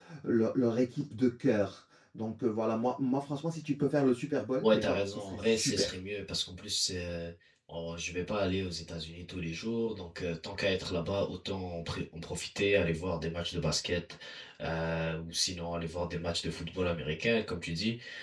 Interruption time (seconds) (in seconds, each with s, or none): 4.6 s